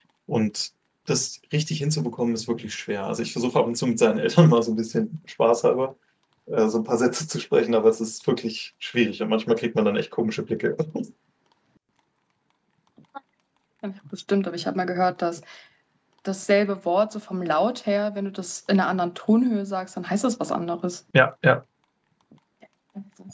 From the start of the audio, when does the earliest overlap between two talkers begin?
none

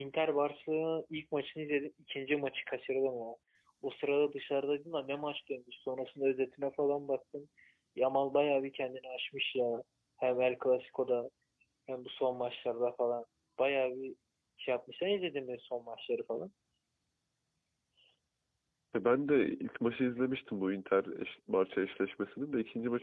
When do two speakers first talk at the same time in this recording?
none

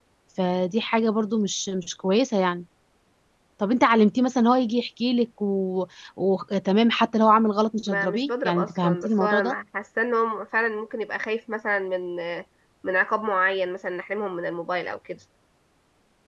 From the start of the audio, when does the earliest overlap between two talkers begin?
7.9 s

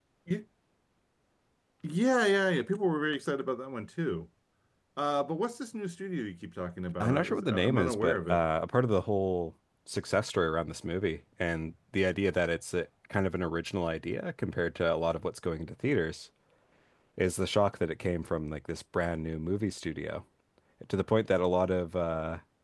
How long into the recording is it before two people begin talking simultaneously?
7.0 s

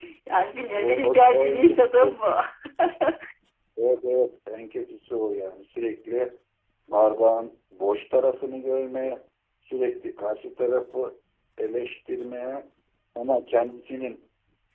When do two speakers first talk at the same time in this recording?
0.7 s

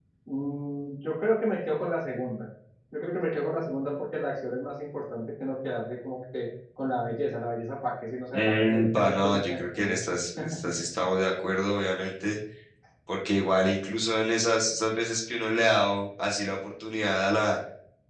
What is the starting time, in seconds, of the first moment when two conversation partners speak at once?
8.3 s

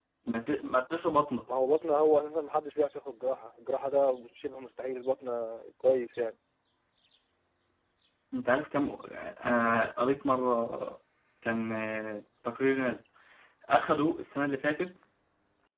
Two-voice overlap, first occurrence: none

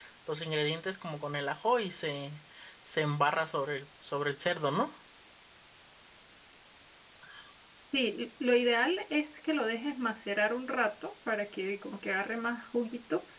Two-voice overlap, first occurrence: none

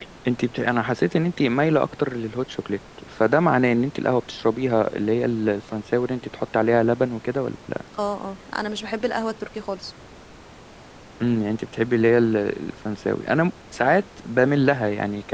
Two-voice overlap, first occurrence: none

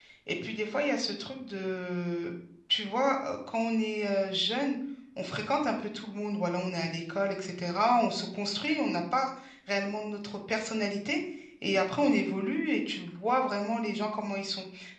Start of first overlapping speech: none

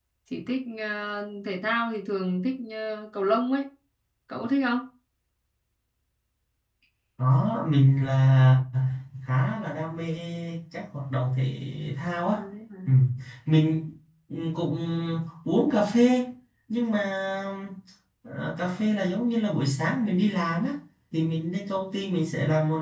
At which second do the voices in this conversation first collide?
none

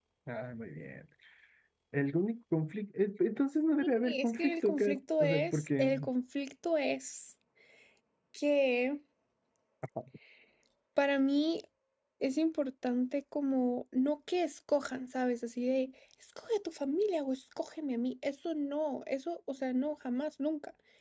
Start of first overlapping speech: 3.7 s

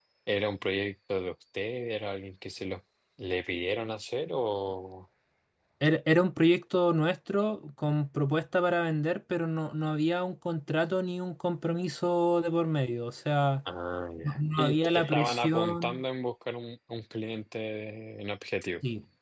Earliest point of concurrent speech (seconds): 14.2 s

